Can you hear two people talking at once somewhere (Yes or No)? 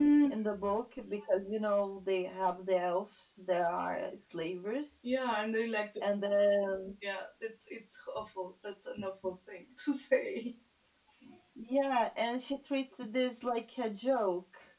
No